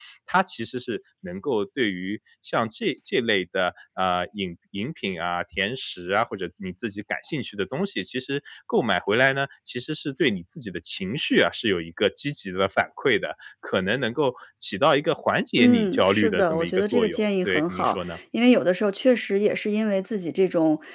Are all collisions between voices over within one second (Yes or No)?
No